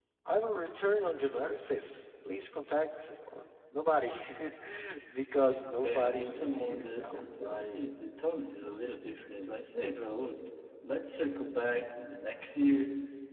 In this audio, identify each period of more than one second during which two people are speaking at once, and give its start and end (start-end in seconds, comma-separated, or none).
5.8-7.2